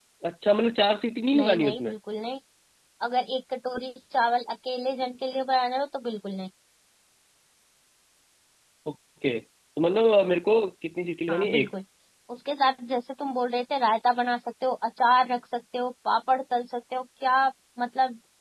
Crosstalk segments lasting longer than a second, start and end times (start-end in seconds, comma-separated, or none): none